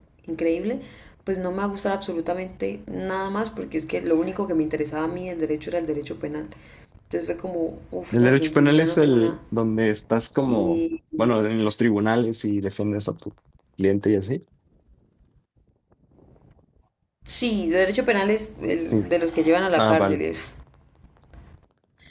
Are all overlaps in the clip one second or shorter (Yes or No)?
No